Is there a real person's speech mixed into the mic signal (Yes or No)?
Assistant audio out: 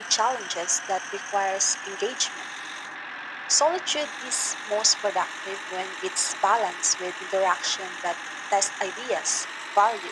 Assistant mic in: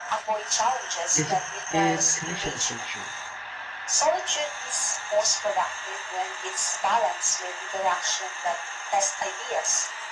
Yes